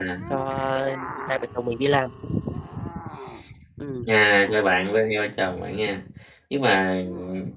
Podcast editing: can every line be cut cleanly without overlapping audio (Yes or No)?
Yes